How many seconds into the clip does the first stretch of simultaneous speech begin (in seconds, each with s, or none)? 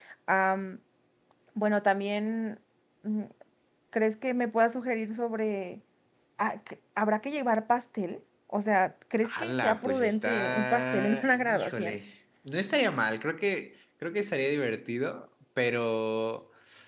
9.2 s